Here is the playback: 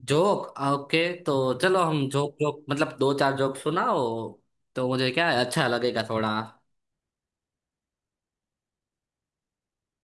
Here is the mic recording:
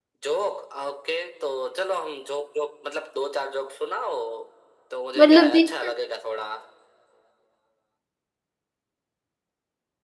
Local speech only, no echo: मतलब देख

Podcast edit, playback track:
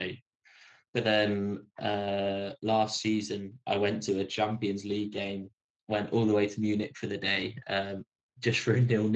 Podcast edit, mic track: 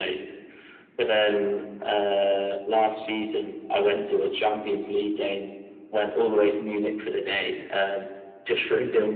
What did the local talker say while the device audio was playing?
none

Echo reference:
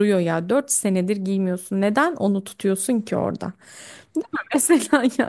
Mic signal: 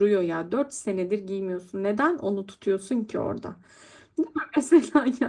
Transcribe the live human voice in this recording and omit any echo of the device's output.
none

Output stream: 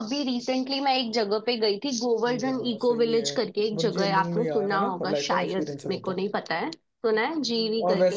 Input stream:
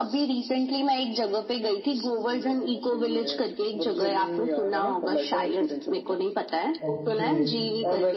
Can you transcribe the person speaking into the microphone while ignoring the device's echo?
ओके

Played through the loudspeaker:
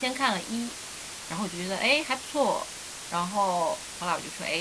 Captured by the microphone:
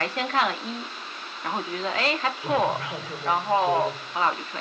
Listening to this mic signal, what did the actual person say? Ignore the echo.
我不知道你有没有听说过。

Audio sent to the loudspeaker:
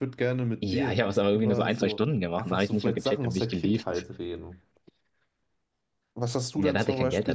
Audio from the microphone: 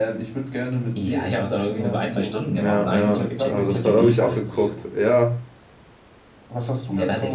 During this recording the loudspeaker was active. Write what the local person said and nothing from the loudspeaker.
ja, ja. Aber Das habe hab ich auch geguckt. Ja.

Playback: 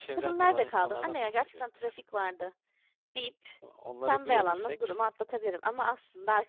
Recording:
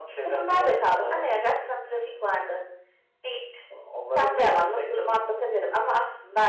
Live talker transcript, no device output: none

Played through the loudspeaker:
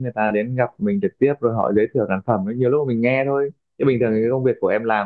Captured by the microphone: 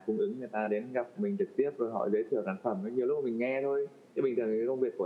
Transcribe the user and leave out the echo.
none

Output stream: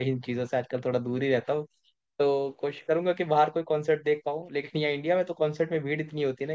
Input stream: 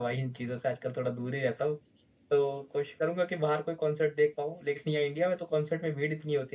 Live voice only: none

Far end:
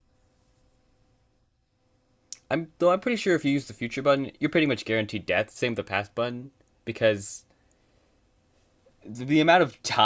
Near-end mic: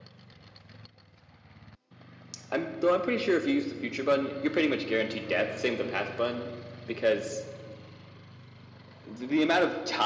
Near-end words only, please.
none

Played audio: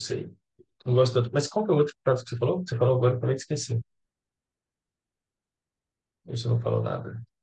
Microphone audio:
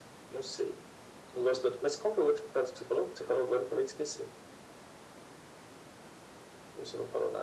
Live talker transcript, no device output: none

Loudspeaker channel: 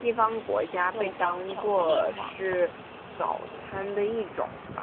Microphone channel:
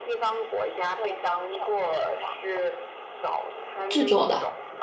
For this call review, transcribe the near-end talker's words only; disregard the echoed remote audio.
制作的。

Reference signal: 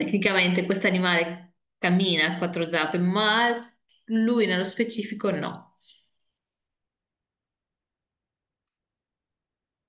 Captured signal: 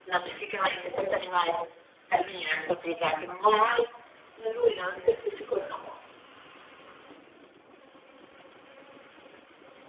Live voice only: none

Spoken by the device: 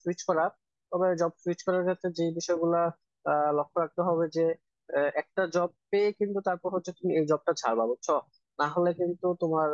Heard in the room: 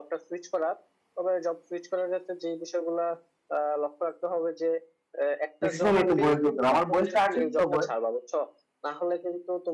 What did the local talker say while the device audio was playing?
ম্যাক্সিমাম একটা বয়স দরকার আমার বয়সটা আছে তো বয়স

